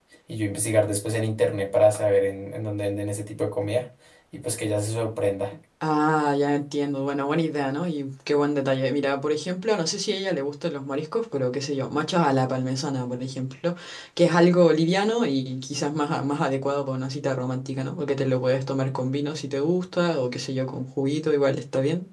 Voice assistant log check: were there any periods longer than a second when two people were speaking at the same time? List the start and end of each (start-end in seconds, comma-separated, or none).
none